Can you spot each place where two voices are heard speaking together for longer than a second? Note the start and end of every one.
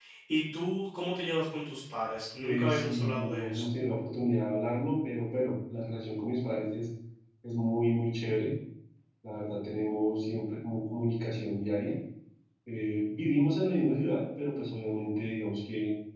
2.4-3.6

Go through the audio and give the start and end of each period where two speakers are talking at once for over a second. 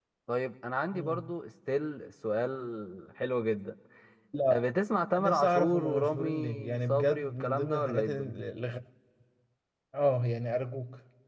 5.2-8.3

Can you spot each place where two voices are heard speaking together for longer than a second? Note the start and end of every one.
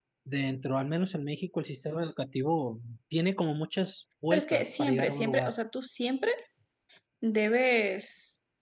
4.3-5.5

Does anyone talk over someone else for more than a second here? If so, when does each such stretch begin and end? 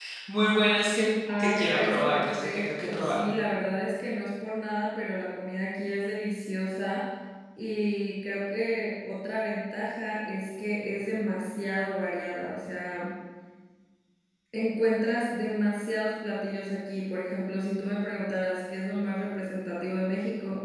1.4-3.2

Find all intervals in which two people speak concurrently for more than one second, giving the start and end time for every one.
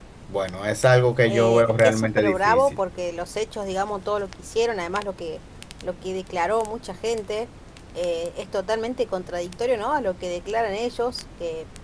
1.3-2.8

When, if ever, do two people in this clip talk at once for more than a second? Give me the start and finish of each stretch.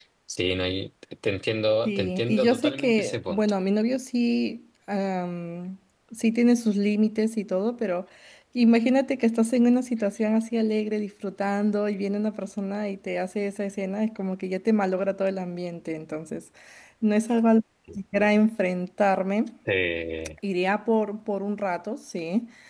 1.9-3.4

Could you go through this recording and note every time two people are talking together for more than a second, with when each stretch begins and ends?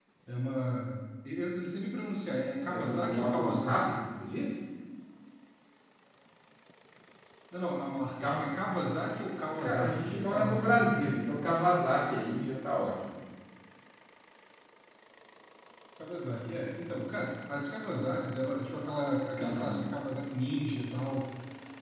2.7-4.0, 9.6-11.1

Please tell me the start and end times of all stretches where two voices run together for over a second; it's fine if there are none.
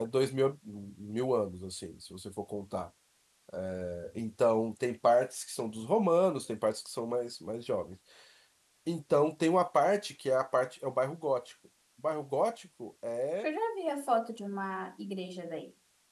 none

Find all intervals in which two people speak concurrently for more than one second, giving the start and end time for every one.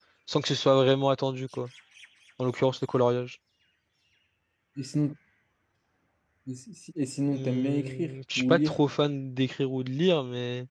7.3-8.8

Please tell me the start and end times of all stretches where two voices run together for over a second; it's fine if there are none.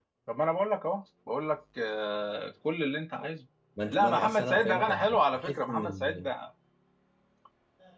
3.9-6.3

